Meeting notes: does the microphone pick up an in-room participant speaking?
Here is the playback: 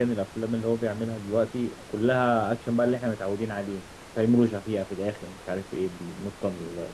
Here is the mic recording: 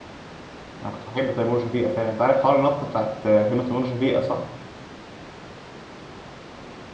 Yes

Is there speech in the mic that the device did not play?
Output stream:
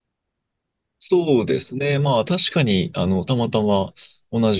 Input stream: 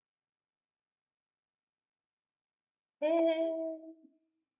Yes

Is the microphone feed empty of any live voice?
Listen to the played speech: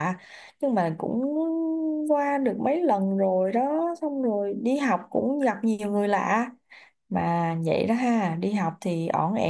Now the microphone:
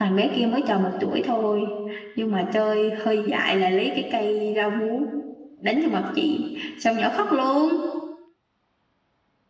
No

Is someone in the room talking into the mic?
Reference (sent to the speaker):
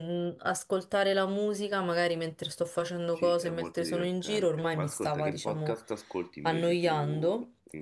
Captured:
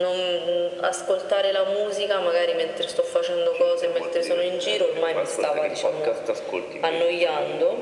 No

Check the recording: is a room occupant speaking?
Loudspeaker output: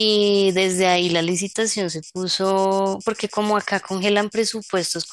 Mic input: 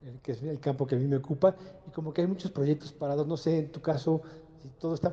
Yes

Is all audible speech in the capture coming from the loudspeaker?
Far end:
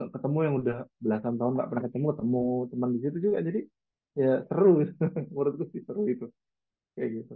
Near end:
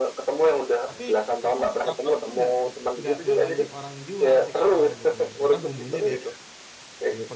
No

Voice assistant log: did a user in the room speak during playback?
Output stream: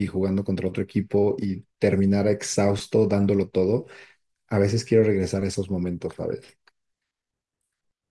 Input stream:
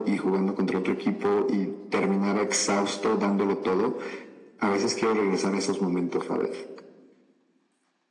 No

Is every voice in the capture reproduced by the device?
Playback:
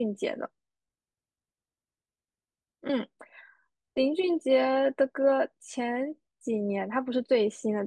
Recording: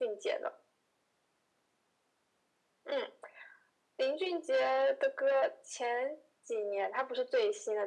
Yes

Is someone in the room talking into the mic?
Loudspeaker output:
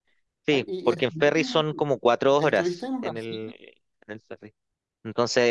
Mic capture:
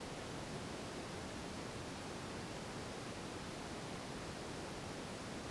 No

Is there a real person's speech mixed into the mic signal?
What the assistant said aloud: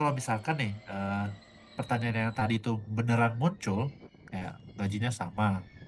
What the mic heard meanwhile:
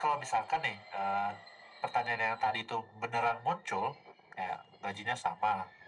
No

